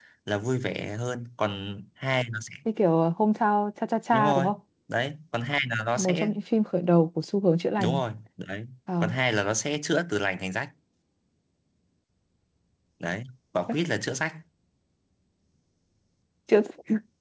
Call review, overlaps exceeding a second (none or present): none